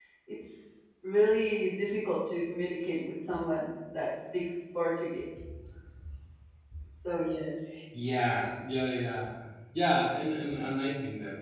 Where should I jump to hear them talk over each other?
none

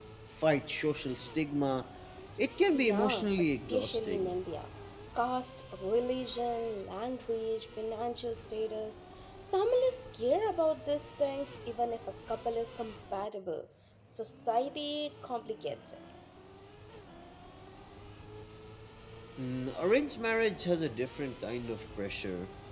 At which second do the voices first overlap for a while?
2.7 s

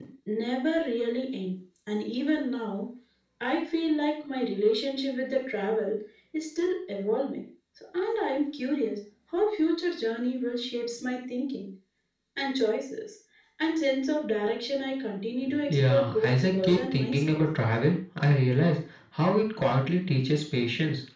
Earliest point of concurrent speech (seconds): 15.4 s

